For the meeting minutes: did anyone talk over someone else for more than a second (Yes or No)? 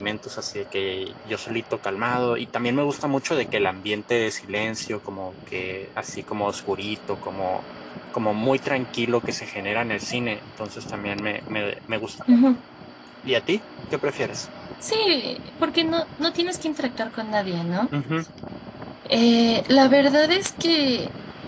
No